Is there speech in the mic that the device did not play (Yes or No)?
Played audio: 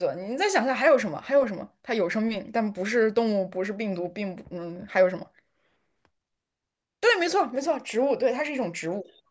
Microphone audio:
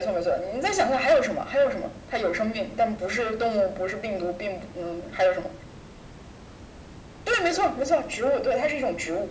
No